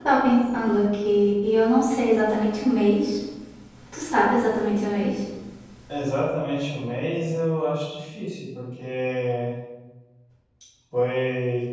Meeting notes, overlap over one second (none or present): none